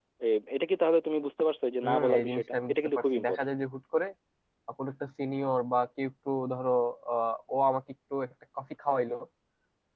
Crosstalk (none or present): present